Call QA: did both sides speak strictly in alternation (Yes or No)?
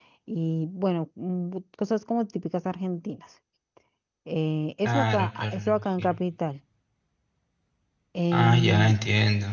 No